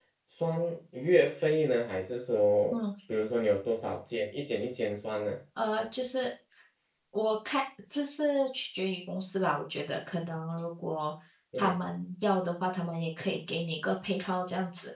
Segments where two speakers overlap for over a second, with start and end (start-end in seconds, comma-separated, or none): none